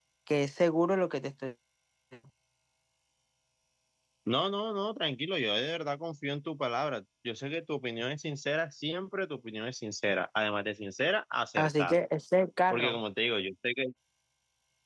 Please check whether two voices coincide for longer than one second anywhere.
No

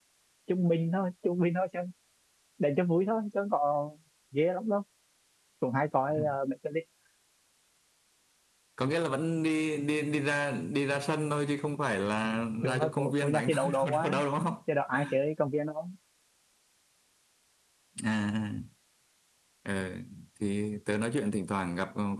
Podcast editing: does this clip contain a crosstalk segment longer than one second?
Yes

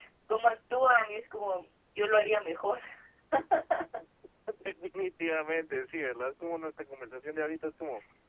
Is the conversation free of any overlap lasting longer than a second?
Yes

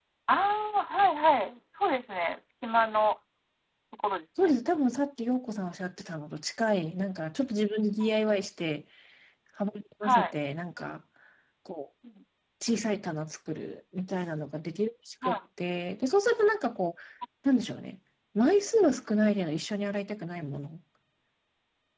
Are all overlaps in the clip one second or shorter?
Yes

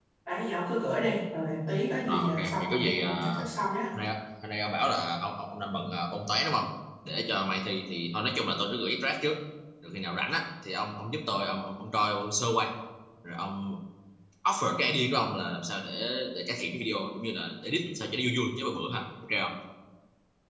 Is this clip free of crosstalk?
No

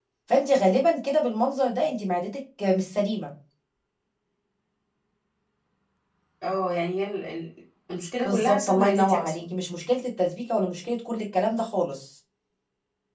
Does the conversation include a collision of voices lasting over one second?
Yes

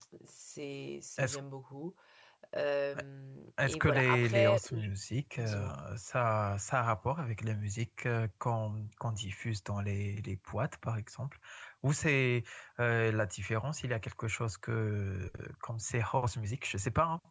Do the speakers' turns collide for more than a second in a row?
Yes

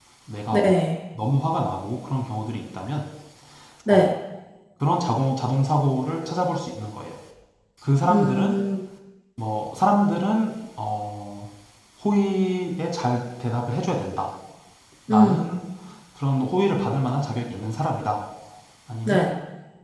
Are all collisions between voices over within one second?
Yes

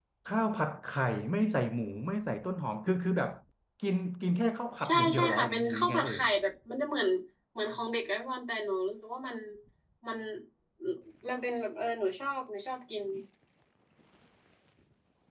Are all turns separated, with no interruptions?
No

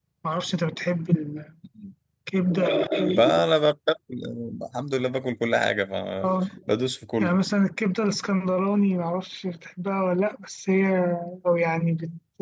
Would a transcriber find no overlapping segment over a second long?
Yes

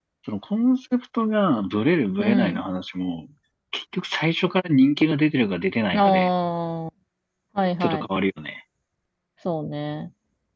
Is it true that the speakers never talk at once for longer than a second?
Yes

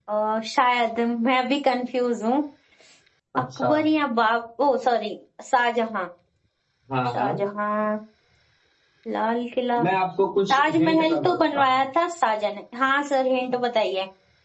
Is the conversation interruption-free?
No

